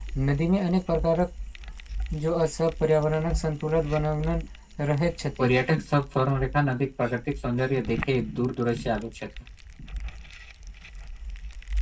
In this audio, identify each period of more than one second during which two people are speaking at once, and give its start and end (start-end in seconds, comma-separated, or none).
none